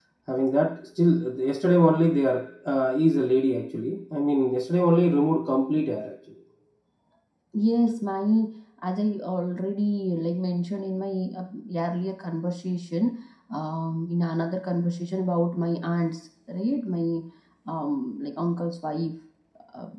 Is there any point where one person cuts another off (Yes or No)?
No